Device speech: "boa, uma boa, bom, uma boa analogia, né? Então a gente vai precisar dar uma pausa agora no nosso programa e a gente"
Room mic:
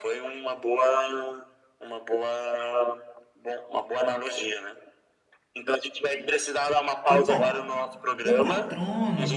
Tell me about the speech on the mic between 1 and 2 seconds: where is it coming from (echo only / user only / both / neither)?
echo only